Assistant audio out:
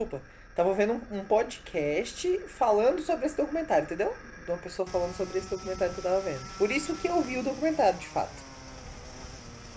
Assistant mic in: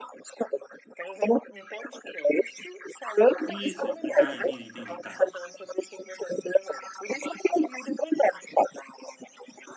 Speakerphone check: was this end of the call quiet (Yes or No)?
No